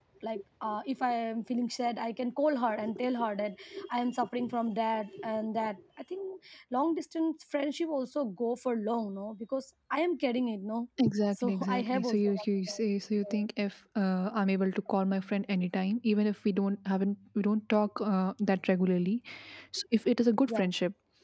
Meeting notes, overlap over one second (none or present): present